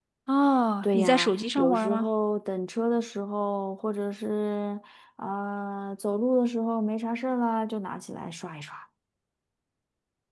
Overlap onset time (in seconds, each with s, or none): 0.8 s